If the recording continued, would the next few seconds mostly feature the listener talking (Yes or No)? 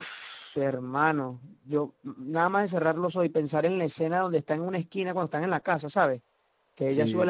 No